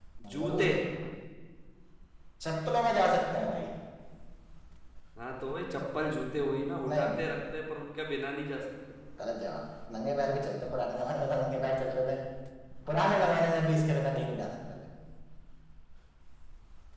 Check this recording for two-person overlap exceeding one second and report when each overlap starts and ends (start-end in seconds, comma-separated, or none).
none